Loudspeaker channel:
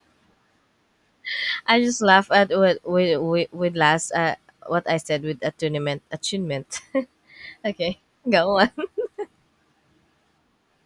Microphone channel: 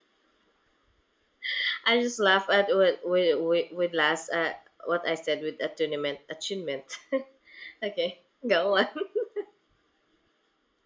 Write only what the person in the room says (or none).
none